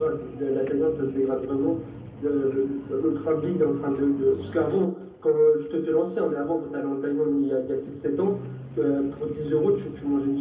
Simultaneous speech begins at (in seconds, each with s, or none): none